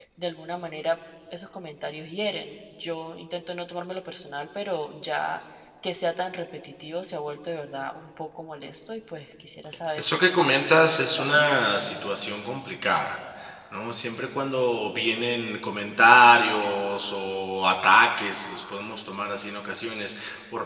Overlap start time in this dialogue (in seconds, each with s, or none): 10.0 s